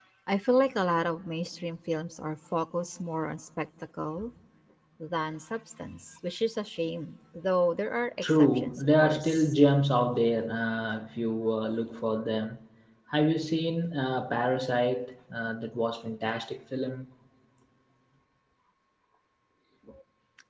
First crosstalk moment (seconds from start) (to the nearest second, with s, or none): 8 s